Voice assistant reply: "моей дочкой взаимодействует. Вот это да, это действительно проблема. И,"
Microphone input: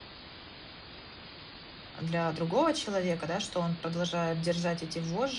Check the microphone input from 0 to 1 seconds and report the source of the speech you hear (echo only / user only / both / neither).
neither